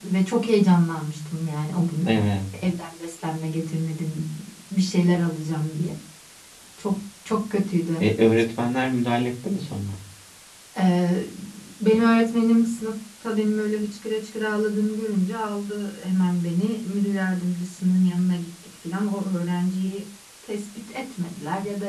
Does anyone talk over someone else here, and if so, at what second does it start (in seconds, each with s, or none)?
none